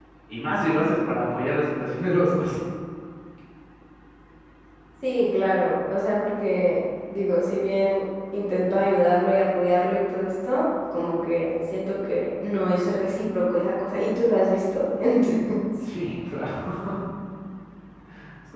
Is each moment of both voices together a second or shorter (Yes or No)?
Yes